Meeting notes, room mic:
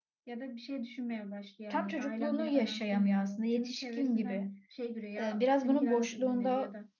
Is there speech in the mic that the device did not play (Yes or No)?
Yes